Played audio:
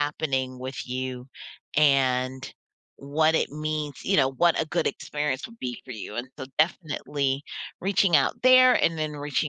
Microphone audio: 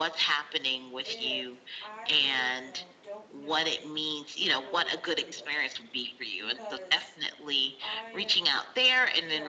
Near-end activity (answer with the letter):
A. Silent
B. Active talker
B